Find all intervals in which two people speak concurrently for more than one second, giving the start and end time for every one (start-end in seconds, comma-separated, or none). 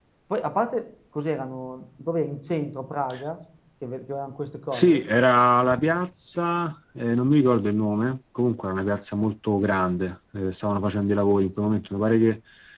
none